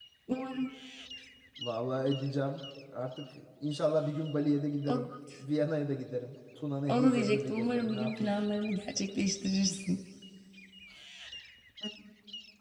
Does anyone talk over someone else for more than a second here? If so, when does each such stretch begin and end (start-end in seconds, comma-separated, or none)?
6.9-8.3